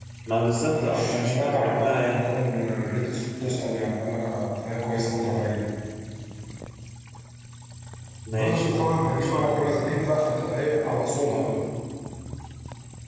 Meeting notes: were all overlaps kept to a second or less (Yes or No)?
No